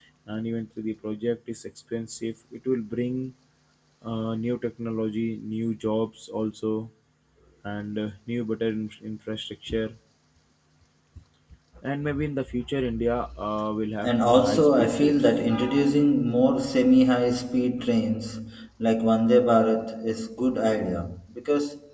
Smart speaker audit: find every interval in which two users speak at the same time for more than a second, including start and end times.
14.0-15.4

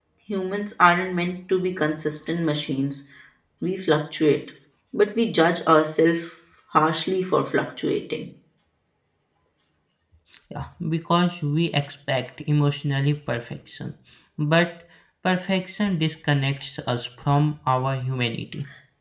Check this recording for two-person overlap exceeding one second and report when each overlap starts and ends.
none

